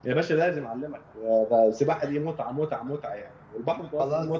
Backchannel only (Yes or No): No